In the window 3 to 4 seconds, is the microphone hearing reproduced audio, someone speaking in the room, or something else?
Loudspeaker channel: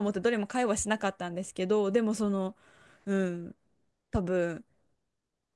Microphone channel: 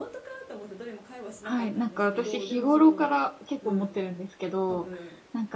both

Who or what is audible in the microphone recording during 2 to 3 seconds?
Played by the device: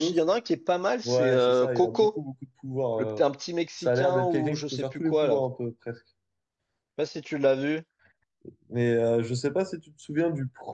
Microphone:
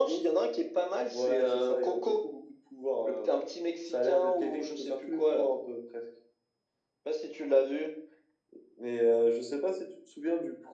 echo only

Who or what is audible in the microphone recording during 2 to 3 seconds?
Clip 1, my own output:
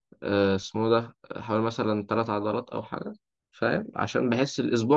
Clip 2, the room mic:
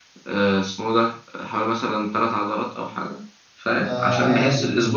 echo only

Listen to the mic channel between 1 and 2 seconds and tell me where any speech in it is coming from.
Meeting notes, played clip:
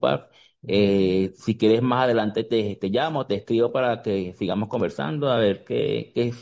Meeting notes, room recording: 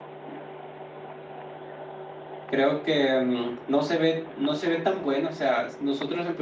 neither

